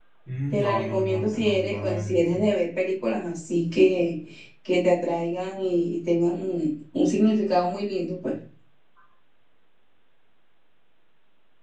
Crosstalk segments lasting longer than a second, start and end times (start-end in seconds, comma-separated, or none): 0.5-2.4